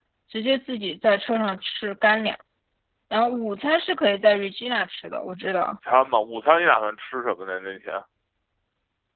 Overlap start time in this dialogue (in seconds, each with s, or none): none